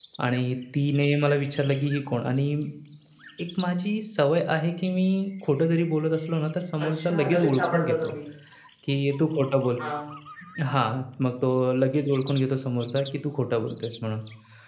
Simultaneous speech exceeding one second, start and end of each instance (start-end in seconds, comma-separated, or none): 6.9-8.1